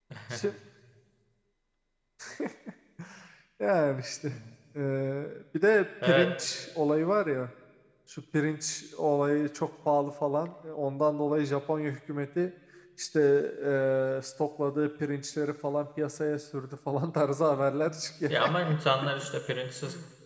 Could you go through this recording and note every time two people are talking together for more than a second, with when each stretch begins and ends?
none

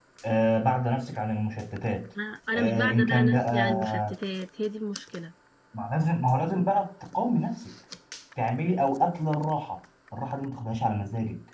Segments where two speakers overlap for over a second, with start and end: 2.6-4.1

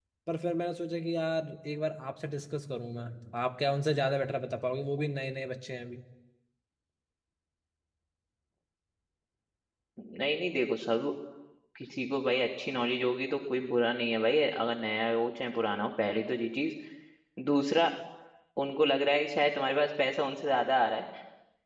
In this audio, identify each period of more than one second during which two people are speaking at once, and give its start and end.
none

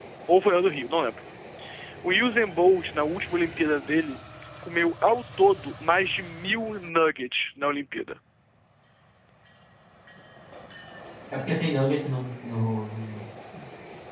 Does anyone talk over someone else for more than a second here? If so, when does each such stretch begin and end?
none

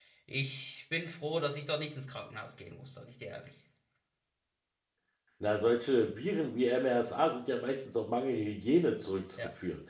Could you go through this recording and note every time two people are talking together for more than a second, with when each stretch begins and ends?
none

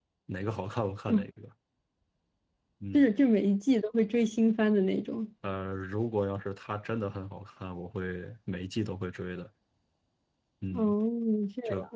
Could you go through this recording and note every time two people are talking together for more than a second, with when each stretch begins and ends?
none

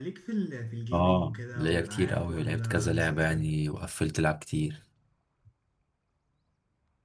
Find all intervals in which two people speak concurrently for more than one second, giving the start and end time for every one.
0.9-3.5

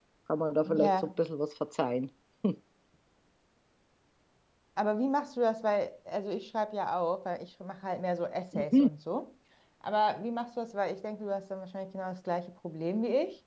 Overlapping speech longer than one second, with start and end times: none

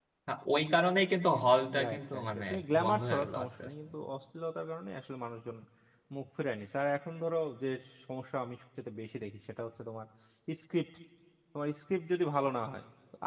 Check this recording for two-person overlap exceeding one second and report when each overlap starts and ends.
1.9-3.9

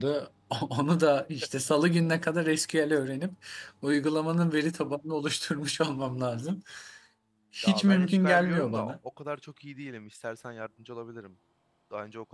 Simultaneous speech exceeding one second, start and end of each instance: 7.6-8.9

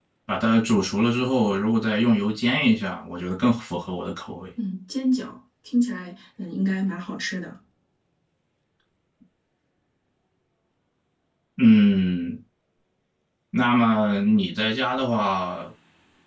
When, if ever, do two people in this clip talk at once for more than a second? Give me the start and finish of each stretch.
none

